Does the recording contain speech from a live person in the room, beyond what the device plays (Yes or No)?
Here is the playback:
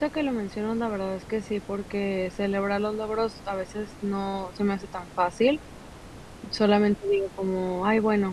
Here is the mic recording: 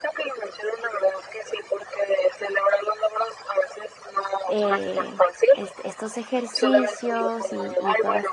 Yes